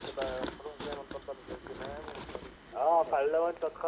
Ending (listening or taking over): taking over